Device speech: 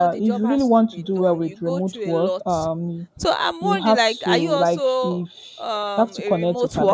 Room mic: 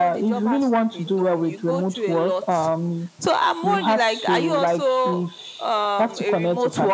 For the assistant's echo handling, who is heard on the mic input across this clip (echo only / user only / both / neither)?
echo only